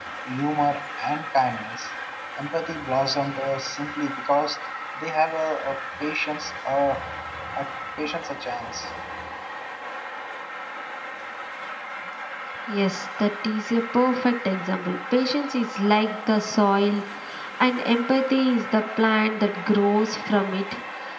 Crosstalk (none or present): none